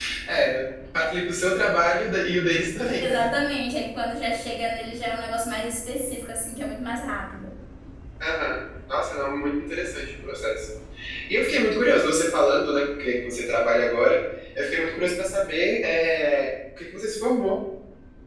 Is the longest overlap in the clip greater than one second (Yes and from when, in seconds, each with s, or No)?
No